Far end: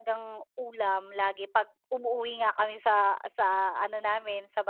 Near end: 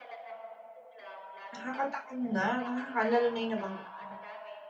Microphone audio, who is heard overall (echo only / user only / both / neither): both